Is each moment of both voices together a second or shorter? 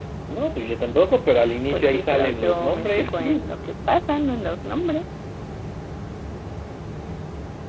No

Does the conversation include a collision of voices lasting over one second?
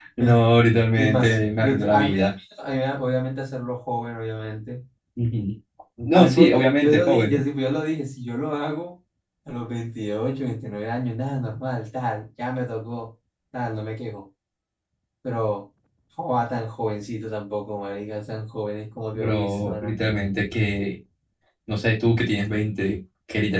Yes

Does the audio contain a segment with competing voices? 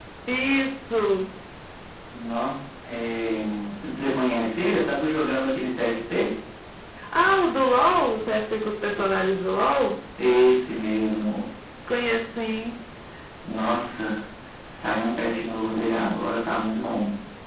No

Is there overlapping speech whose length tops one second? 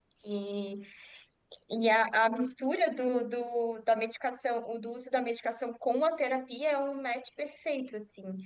No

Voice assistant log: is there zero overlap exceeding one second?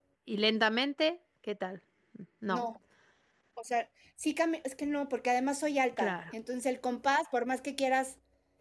Yes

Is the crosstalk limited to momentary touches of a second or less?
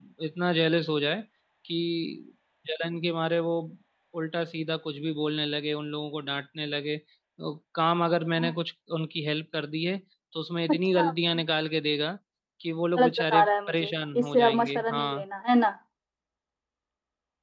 No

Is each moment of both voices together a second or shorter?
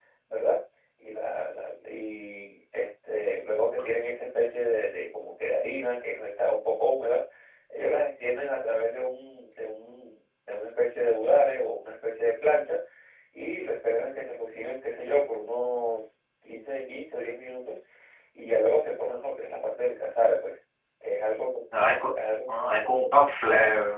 Yes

